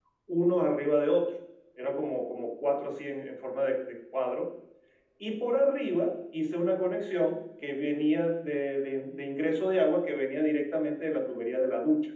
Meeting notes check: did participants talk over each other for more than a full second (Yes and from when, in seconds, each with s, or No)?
No